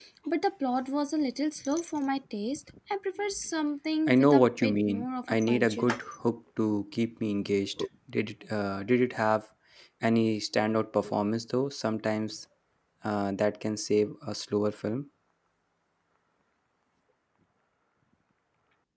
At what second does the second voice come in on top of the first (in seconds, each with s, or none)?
4.1 s